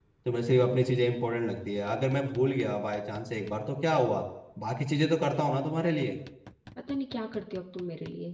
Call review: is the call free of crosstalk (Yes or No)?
Yes